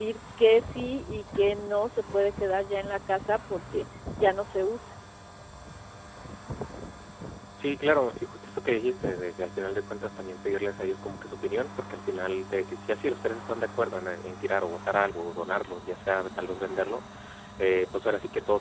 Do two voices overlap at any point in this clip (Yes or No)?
No